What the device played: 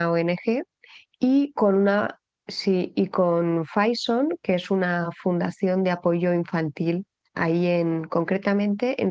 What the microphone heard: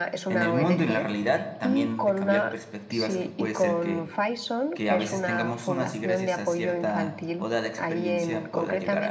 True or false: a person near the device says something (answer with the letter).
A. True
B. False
A